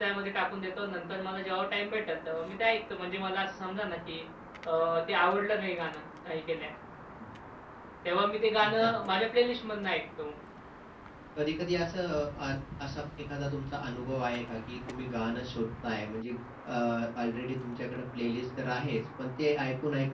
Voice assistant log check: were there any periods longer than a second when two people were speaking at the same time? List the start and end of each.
none

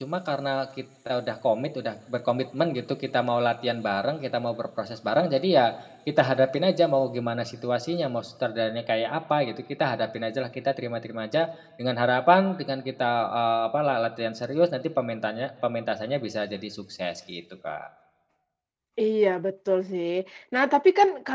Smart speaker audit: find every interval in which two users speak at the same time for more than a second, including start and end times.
none

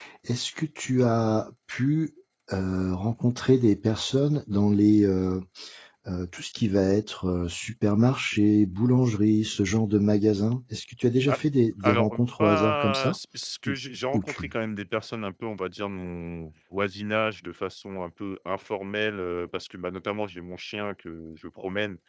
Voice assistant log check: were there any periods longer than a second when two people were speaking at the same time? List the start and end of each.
11.8-13.2

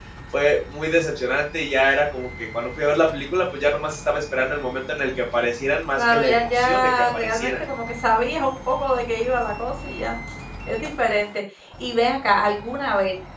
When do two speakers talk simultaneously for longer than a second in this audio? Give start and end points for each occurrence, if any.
5.9-7.6

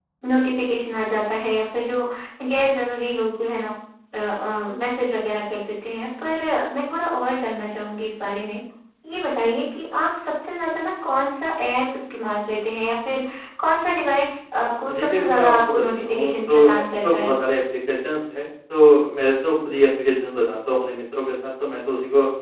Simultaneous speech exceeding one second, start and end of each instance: 14.9-17.3

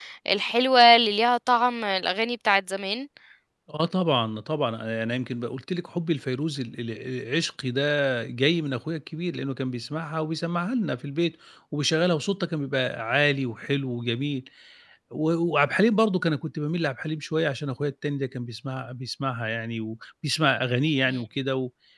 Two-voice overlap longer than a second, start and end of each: none

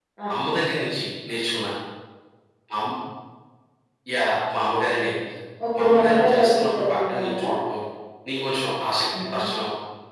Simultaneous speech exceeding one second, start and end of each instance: 5.7-7.3

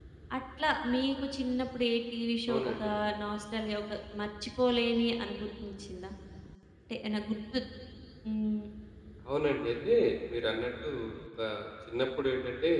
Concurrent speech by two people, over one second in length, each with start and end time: none

